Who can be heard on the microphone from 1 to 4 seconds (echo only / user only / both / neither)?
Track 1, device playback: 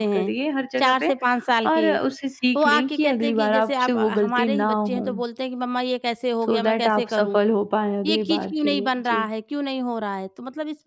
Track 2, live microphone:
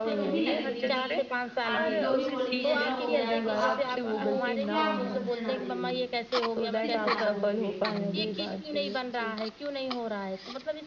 both